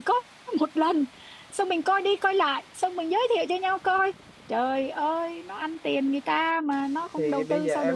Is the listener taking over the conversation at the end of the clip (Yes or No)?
Yes